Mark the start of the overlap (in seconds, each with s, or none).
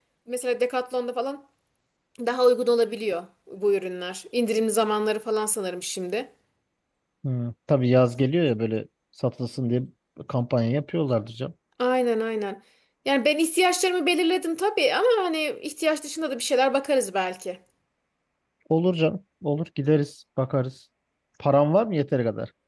none